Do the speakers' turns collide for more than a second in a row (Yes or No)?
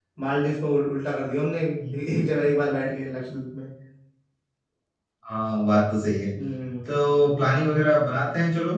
No